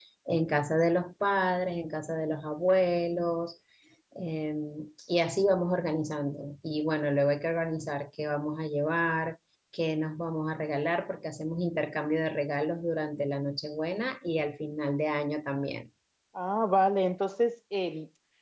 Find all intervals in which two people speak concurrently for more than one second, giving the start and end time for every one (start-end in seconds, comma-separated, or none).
none